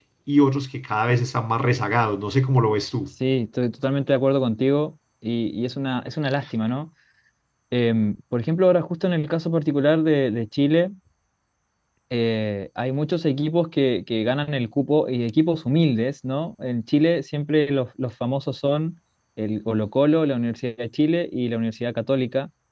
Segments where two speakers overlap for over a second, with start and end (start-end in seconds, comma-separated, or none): none